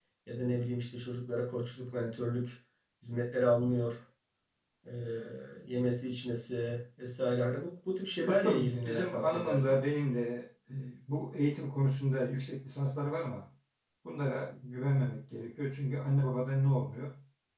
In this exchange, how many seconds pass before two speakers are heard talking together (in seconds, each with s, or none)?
8.2 s